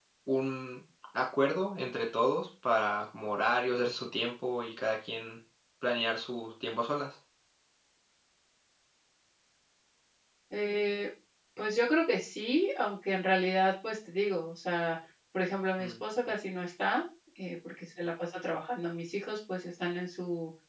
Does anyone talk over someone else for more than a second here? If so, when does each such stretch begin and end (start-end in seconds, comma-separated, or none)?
none